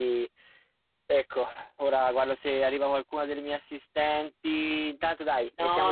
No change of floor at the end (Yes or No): No